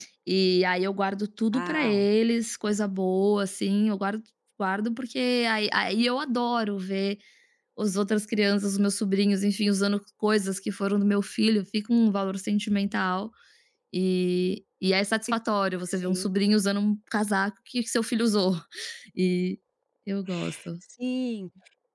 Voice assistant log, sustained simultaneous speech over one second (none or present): none